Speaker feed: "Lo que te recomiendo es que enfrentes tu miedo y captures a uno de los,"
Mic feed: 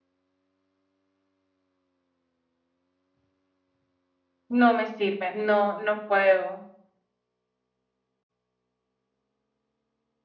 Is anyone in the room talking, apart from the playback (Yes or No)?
Yes